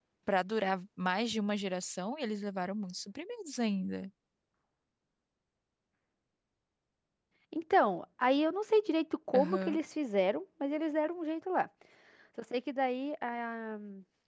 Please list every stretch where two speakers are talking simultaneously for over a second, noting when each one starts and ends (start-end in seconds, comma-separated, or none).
none